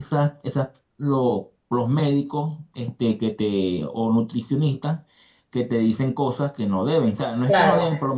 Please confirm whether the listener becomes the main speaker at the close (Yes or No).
No